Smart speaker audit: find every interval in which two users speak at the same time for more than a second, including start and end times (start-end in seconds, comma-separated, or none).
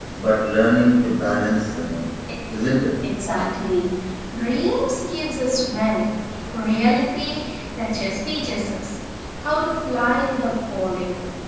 none